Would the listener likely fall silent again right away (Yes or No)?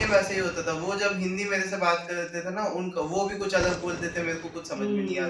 No